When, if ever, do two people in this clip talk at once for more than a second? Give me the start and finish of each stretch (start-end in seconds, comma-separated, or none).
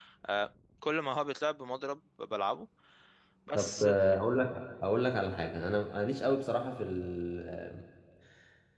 none